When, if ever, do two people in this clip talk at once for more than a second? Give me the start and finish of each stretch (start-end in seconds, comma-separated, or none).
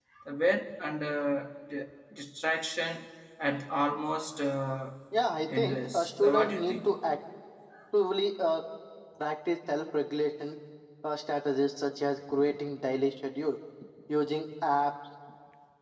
5.6-6.9